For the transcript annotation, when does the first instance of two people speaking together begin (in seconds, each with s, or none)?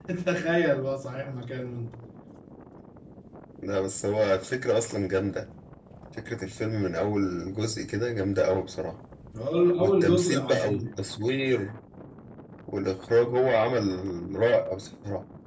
9.8 s